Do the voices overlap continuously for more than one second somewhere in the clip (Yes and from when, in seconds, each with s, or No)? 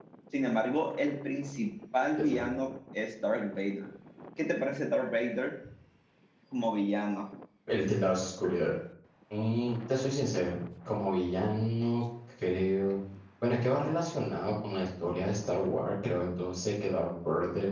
No